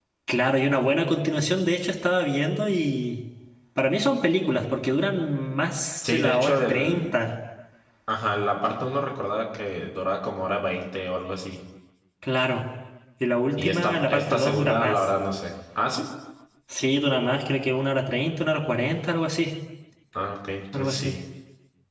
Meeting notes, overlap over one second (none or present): present